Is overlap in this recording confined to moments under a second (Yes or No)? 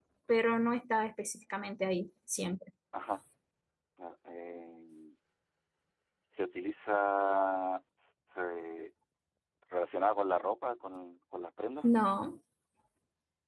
Yes